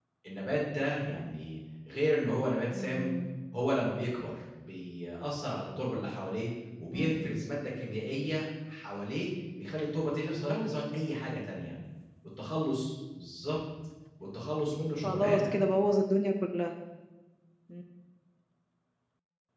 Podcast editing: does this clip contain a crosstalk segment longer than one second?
No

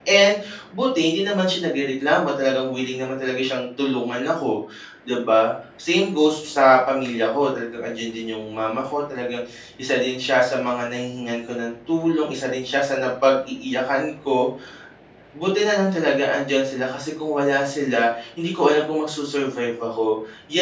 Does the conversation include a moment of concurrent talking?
No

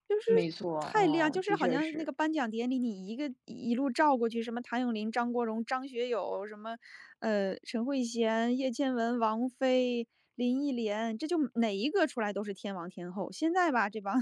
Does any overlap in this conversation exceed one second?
Yes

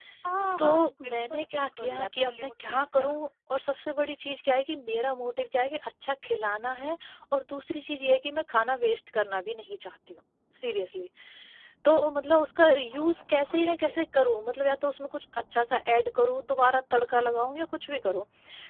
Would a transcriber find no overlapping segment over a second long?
No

